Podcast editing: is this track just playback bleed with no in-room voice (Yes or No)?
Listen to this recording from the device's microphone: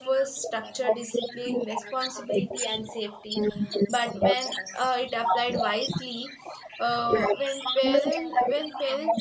No